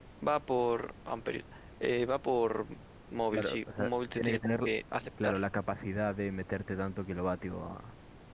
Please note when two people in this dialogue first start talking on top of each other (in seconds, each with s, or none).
3.3 s